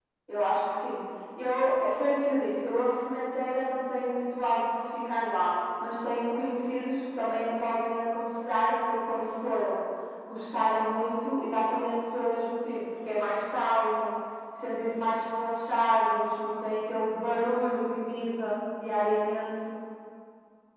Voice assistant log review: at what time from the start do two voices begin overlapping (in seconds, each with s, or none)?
none